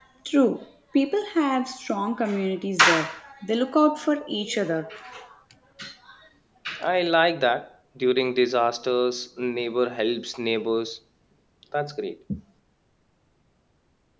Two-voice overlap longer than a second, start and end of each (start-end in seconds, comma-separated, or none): none